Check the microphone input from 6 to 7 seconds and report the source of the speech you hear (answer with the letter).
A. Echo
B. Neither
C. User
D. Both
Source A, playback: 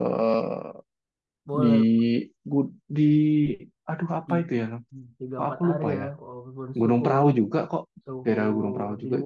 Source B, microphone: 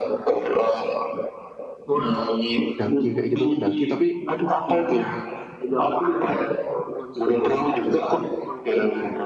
A